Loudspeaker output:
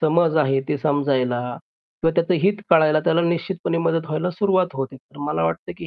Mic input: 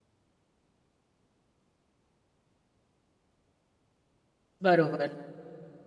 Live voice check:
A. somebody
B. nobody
A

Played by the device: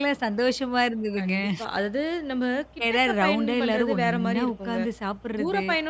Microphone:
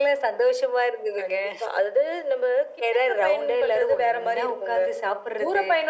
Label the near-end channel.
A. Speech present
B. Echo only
B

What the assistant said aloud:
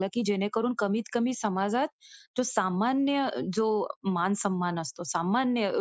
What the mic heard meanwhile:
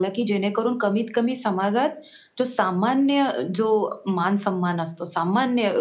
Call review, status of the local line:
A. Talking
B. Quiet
B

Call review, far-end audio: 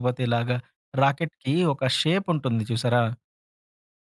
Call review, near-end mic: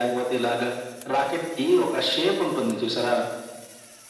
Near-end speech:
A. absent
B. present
A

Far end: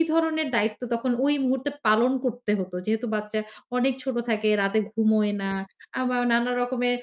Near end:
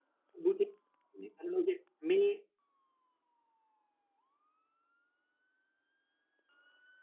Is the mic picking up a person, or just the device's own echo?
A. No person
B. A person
B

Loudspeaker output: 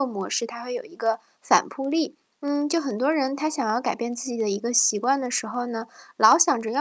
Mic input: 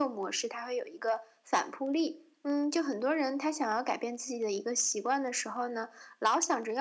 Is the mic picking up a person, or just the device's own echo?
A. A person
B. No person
B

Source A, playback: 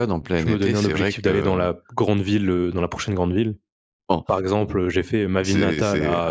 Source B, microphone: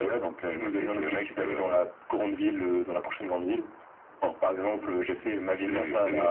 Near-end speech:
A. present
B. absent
B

